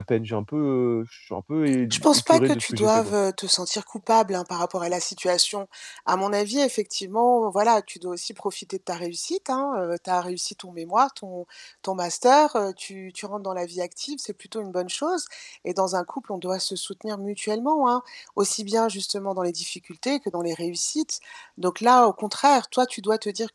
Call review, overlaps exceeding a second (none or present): present